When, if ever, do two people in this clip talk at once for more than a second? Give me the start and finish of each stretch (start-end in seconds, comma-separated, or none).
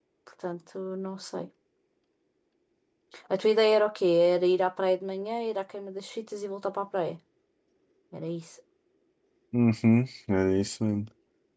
none